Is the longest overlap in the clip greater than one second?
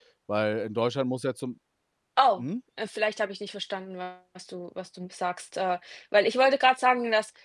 No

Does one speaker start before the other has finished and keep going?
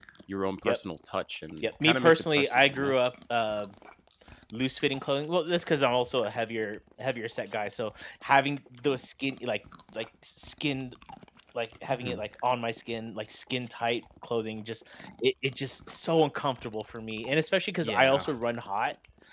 Yes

